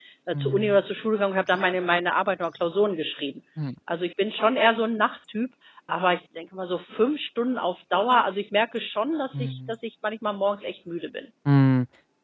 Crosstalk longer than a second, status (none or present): none